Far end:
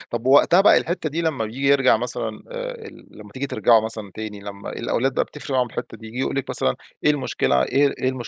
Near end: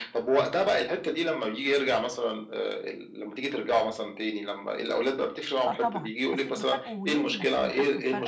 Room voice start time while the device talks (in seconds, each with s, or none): 5.7 s